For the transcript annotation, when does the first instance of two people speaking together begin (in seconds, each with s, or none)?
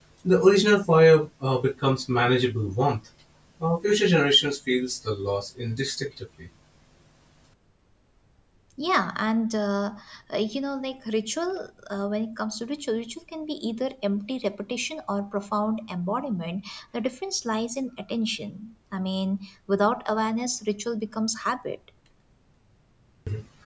none